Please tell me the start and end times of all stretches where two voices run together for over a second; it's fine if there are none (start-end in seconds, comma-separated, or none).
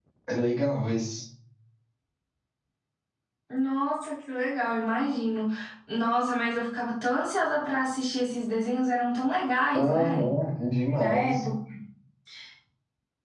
none